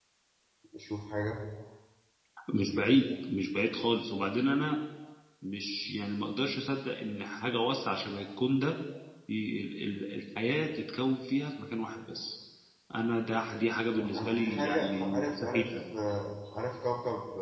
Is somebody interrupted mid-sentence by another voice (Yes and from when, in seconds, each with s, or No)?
Yes, from 13.9 s